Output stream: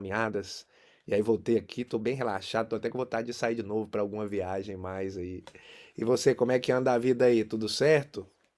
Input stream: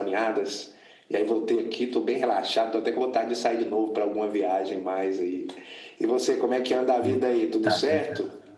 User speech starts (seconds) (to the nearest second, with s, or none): 7 s